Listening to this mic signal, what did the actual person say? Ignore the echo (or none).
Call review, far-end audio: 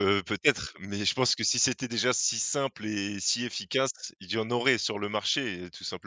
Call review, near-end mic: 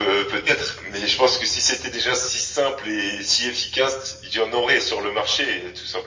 none